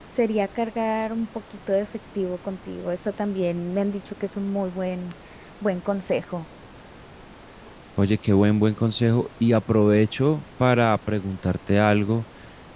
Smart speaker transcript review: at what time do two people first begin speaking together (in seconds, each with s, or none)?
none